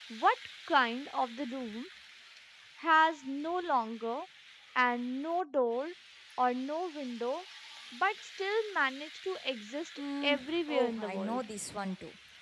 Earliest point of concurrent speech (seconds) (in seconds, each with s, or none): 10.2 s